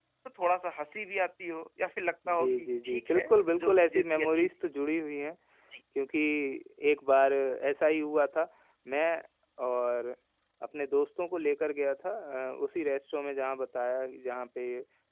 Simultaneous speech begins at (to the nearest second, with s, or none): 2 s